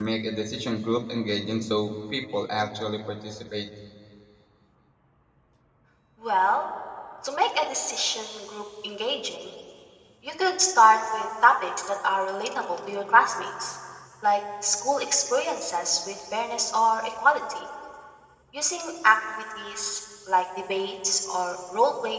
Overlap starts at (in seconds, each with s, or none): none